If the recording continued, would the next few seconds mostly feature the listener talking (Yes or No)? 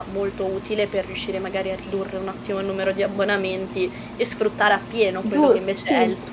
Yes